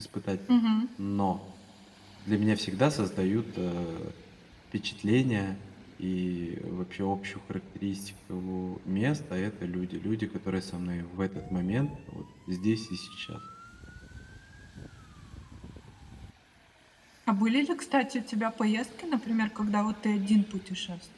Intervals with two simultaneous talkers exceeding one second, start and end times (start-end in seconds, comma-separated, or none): none